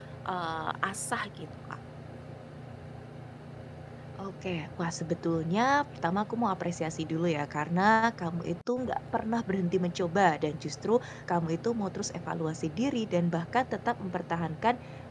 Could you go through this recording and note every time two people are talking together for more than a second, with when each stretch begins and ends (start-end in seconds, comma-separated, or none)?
none